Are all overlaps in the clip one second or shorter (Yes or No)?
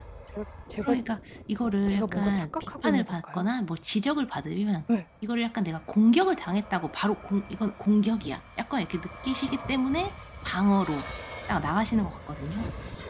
No